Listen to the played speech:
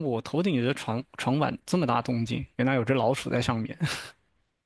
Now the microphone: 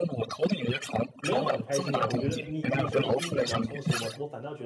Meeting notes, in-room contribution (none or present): present